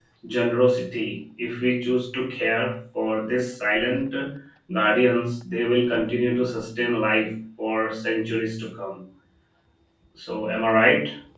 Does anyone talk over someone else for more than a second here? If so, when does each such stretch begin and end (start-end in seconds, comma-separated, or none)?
none